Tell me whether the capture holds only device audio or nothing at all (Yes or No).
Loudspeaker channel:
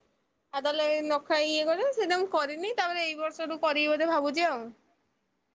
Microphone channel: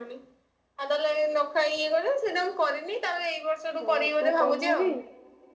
No